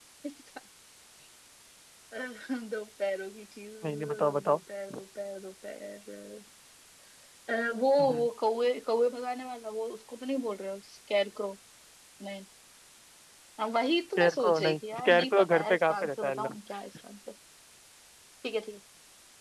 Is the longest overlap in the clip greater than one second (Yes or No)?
Yes